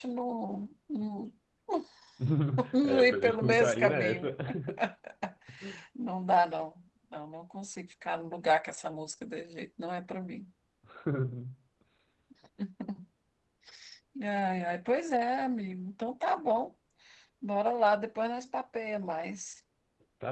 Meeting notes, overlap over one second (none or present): present